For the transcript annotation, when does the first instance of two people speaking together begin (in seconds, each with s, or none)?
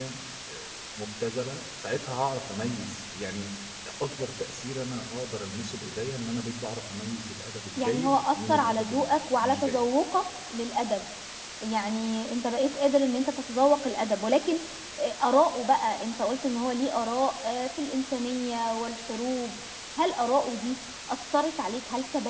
7.8 s